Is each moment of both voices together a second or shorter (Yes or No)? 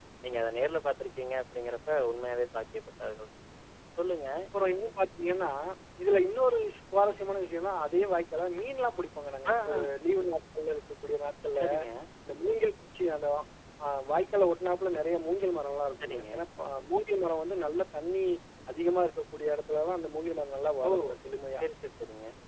Yes